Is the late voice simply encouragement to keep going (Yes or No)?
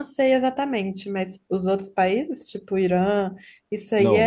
No